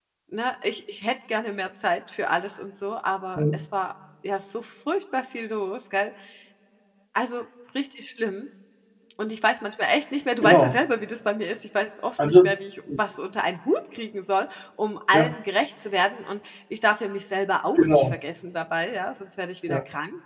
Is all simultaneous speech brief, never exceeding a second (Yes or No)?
Yes